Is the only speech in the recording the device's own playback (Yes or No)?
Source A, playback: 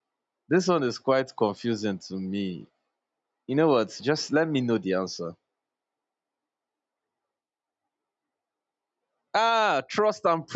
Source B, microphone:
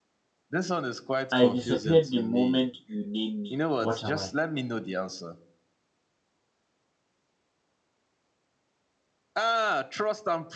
No